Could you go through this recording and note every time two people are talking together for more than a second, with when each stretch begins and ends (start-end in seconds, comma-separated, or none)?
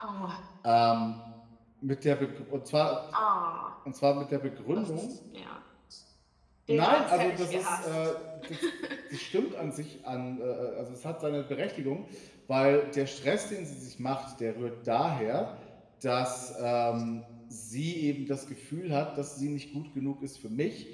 6.7-8.0